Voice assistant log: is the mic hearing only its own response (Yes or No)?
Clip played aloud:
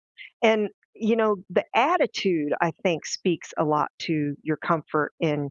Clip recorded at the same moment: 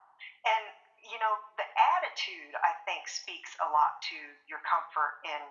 Yes